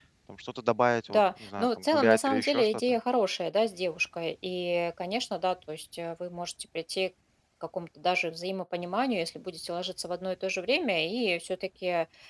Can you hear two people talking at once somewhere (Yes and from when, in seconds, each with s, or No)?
Yes, from 1.1 s